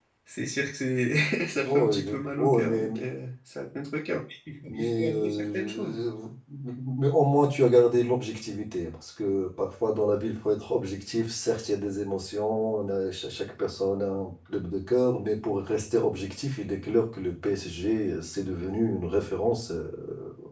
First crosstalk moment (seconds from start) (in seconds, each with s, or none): 1.6 s